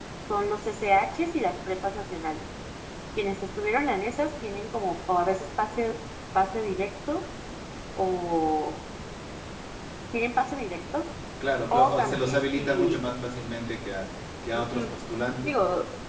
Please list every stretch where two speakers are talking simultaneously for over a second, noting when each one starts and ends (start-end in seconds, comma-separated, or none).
11.7-13.0